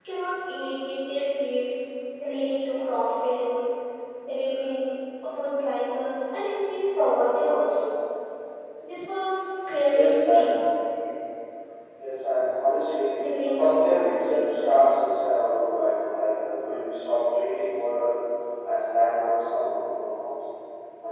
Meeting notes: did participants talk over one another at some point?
Yes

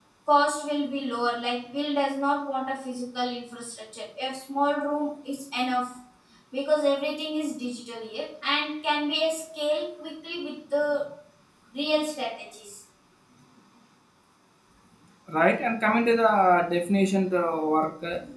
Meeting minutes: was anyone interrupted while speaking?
No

